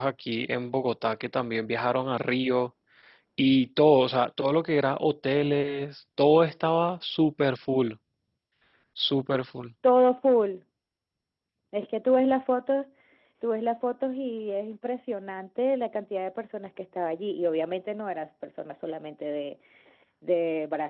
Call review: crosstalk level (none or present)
none